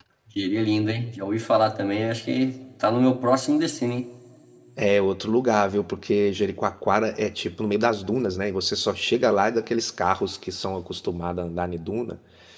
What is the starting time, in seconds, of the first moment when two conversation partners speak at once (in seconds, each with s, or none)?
none